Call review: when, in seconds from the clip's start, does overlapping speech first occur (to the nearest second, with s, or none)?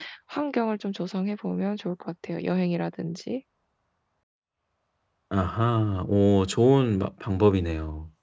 none